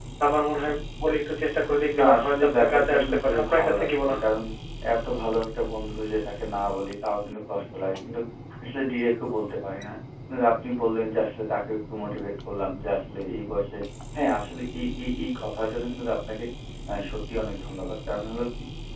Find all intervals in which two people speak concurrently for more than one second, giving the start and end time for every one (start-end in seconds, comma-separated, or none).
2.0-4.3